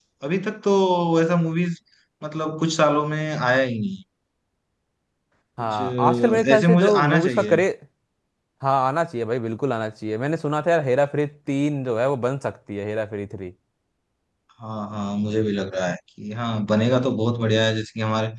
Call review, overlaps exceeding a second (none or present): present